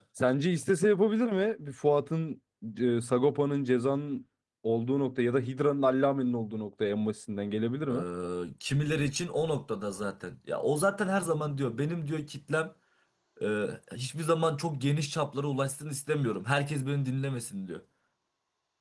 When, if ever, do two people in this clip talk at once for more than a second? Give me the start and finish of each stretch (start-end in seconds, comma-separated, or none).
none